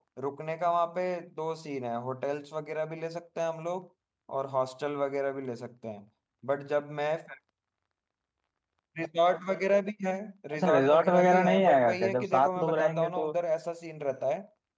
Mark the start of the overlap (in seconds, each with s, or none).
10.5 s